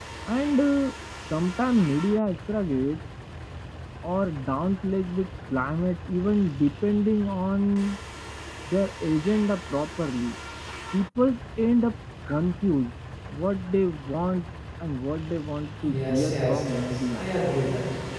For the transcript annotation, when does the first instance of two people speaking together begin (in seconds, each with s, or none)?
15.8 s